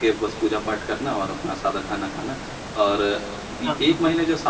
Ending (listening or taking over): listening